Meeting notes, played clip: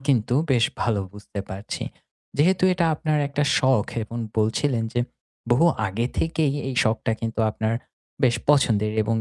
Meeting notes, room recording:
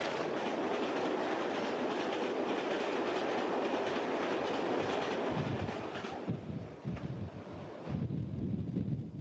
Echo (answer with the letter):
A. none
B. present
A